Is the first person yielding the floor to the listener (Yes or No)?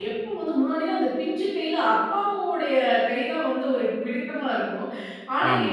No